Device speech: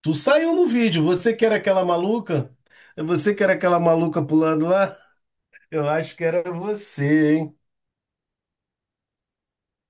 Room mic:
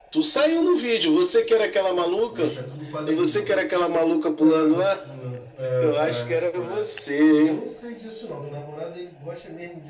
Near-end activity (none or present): present